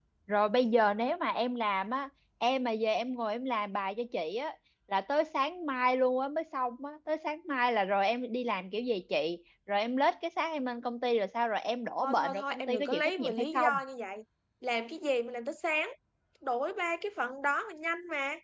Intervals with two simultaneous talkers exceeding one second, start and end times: 12.0-13.7

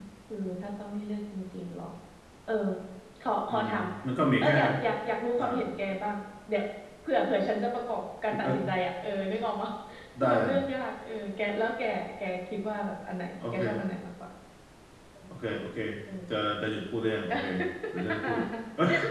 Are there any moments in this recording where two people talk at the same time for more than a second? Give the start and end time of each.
none

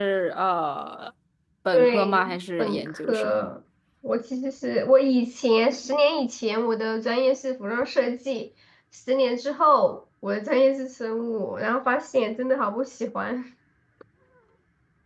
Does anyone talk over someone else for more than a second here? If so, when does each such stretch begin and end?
1.7-3.5

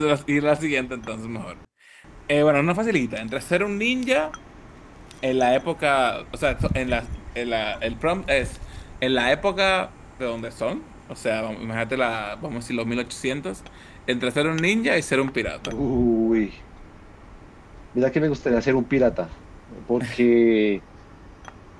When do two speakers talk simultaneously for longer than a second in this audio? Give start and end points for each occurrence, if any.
none

